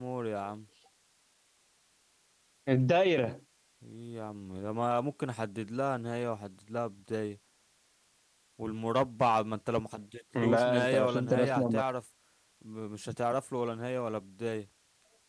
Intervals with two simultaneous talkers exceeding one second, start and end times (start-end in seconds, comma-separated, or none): 10.4-11.8